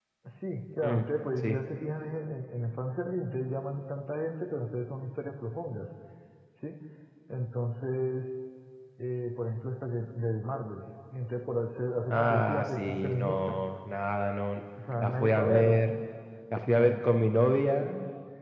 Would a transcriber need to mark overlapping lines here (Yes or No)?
Yes